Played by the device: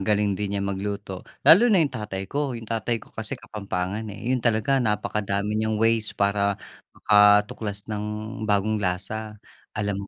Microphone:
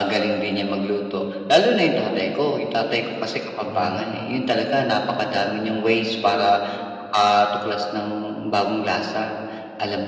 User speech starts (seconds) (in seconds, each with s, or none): 3.6 s